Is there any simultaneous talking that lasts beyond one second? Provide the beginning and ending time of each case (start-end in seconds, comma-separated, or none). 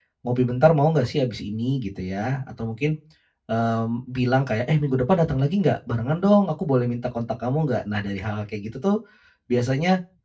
none